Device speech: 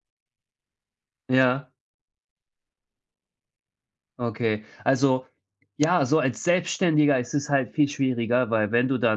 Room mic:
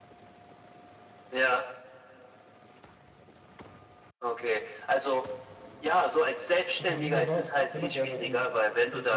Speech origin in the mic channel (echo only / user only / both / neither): both